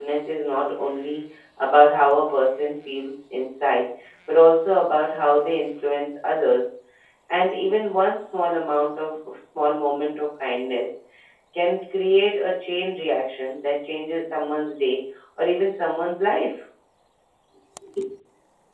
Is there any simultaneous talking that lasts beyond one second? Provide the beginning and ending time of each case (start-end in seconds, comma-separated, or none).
none